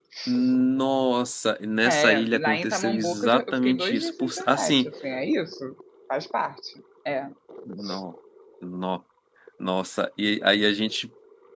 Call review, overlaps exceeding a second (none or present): present